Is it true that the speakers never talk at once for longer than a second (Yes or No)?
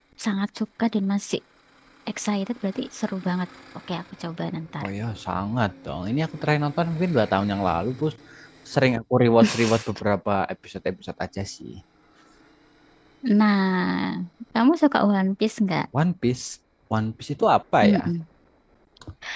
Yes